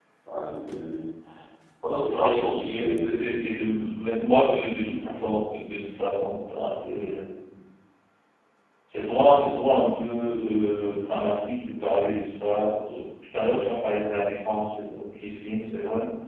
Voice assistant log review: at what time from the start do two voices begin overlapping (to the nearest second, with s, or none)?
2 s